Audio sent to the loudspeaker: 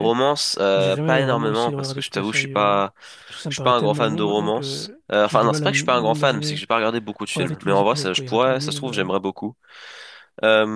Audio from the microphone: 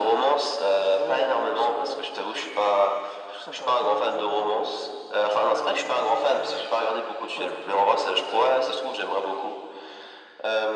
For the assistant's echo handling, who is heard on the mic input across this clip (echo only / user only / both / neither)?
echo only